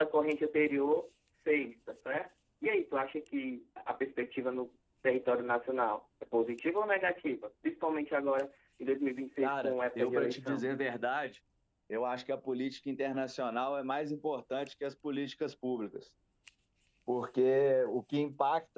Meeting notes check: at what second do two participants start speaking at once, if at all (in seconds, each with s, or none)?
9.4 s